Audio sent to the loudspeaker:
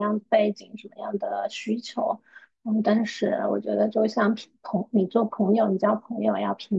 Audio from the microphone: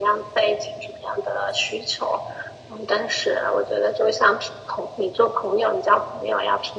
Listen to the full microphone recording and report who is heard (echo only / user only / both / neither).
echo only